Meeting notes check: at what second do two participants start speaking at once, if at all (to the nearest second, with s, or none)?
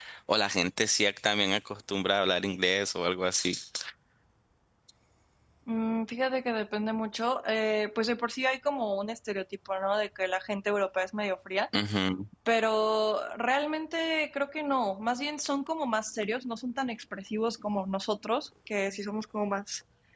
none